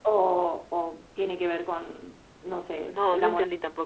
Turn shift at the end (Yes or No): Yes